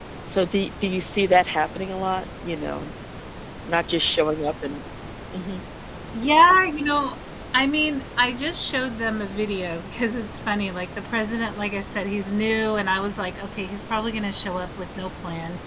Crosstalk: none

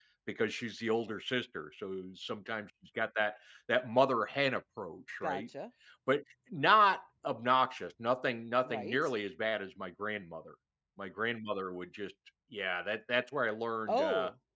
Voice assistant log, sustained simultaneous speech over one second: none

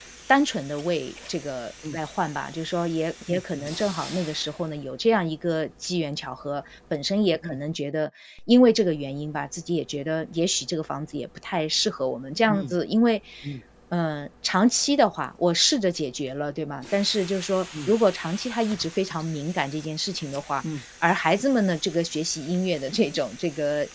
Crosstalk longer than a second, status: none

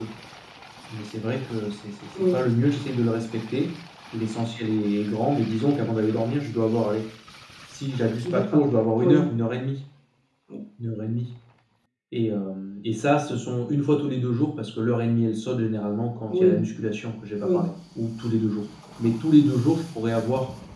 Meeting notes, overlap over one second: none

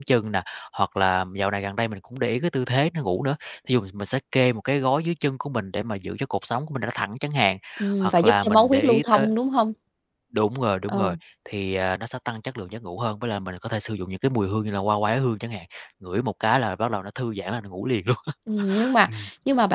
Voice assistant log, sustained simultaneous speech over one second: present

